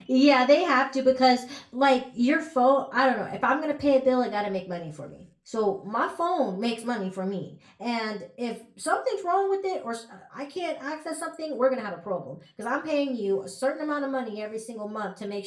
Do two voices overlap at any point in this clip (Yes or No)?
No